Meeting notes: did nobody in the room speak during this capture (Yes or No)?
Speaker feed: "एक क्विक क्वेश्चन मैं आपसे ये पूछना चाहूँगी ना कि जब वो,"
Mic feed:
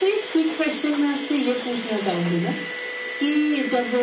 Yes